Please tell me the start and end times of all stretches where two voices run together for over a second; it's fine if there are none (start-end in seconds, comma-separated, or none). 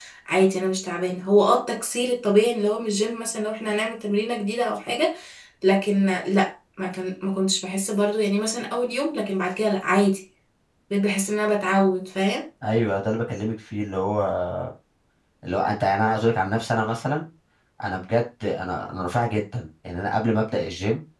none